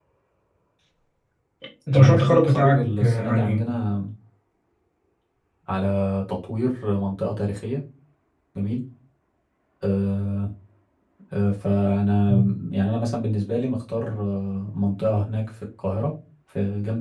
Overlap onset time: 1.9 s

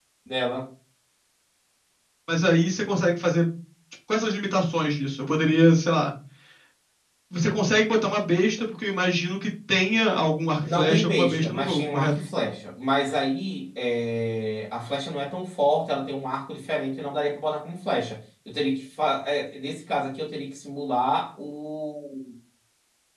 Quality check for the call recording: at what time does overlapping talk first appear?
10.7 s

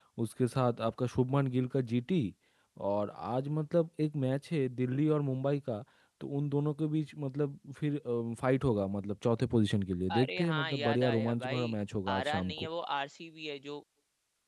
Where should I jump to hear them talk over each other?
10.1 s

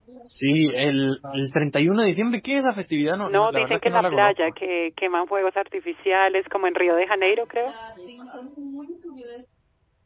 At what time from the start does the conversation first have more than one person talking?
3.2 s

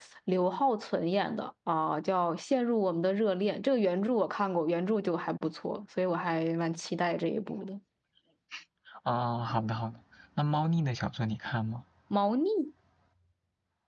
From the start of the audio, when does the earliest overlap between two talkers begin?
none

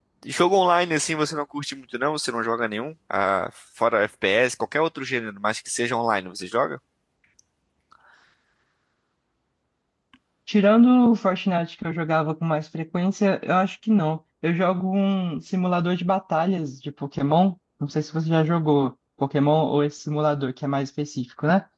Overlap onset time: none

